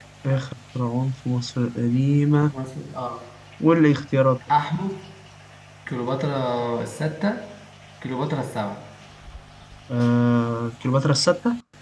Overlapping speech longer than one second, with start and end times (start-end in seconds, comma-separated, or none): none